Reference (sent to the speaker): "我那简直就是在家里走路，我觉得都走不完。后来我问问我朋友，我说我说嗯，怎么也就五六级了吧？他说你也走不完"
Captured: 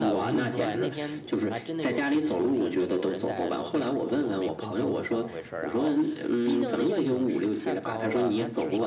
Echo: present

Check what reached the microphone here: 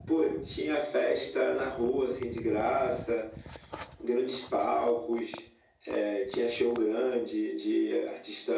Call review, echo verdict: present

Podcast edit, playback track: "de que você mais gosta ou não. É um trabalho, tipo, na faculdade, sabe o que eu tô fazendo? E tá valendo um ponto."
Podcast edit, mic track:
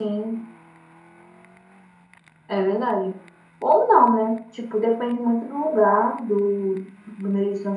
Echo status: none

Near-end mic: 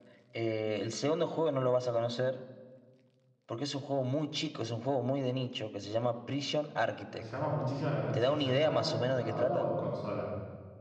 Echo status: present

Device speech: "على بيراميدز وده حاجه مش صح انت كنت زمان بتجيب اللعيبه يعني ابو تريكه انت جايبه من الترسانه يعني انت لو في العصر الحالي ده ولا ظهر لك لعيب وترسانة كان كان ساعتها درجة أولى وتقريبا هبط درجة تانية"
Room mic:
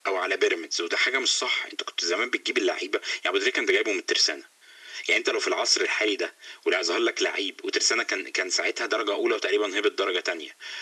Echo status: present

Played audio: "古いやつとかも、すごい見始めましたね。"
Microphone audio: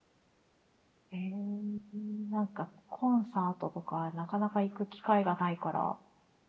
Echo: none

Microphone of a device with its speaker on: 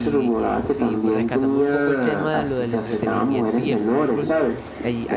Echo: present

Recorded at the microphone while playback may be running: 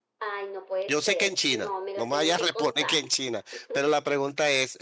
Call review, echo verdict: present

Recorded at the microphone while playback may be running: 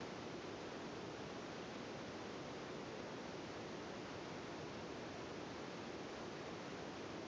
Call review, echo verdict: none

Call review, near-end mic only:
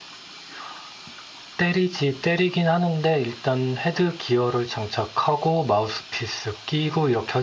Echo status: none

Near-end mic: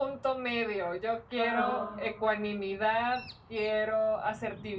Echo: present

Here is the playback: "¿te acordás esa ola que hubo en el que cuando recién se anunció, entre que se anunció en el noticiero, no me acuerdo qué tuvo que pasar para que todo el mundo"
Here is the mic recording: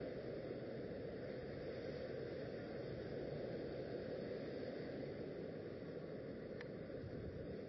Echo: none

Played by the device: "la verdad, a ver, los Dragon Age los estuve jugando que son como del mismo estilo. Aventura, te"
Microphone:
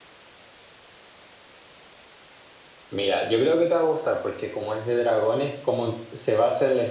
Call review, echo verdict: none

